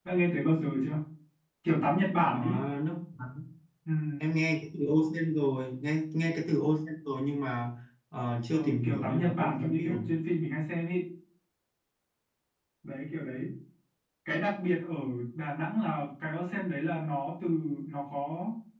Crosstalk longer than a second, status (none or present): present